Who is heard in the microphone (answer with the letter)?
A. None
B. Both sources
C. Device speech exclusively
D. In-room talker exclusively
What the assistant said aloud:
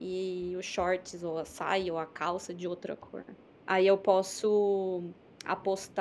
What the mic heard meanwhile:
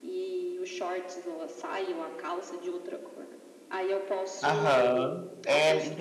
B